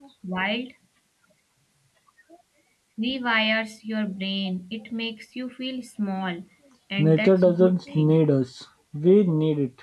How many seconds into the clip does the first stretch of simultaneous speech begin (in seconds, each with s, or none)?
7.0 s